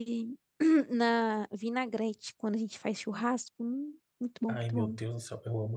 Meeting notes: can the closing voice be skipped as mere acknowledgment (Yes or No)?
No